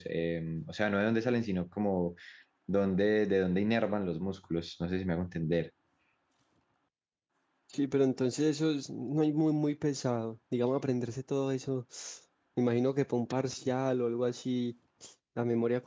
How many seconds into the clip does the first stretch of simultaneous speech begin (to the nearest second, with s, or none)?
none